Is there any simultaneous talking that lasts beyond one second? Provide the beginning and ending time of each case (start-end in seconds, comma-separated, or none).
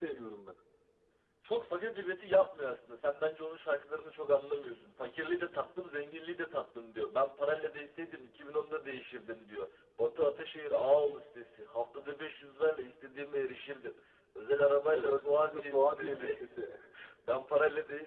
14.9-16.4